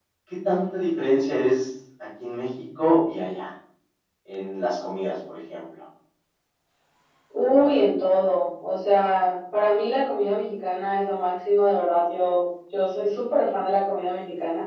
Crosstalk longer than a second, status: none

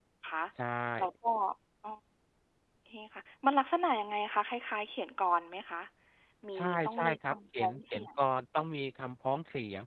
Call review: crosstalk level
present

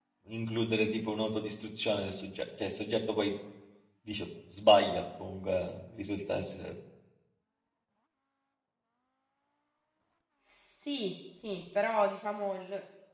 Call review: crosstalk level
none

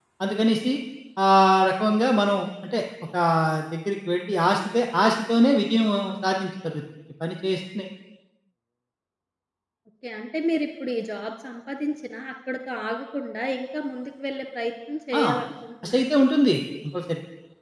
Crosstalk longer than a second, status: none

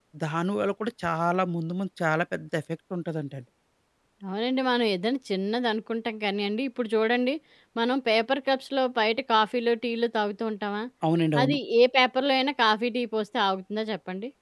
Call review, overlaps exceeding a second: none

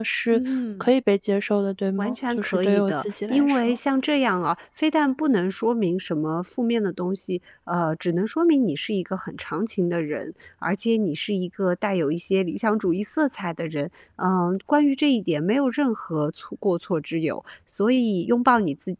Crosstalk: present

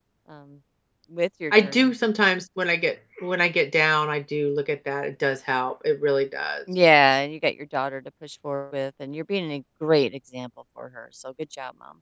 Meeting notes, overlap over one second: none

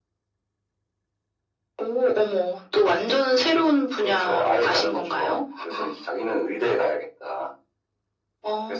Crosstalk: present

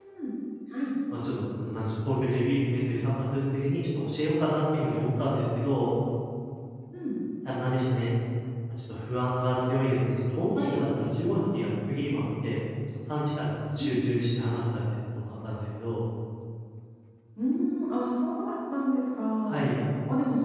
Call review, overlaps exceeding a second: none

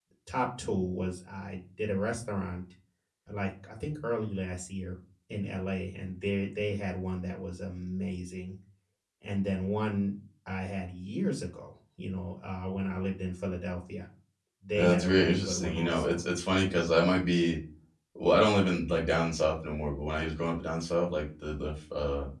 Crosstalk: present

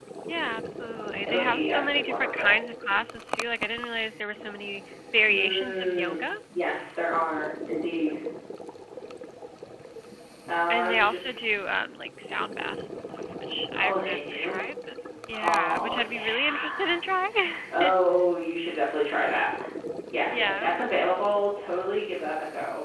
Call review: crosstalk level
present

